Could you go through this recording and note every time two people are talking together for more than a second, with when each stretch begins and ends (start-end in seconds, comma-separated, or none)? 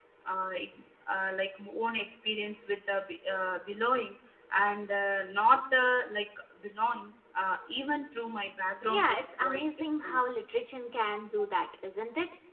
8.9-10.2